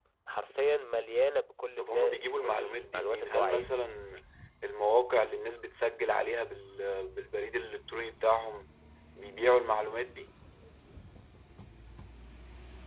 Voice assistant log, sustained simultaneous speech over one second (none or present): present